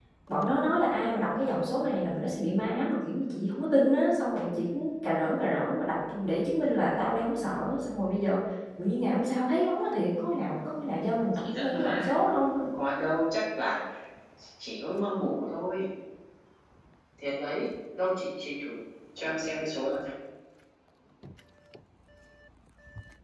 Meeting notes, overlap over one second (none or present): present